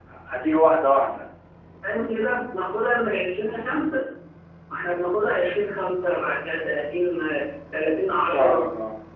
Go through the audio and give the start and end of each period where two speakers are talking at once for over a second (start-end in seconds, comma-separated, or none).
none